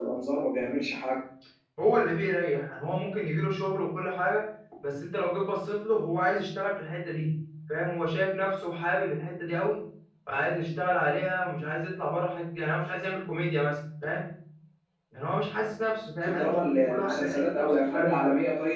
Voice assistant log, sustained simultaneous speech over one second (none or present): present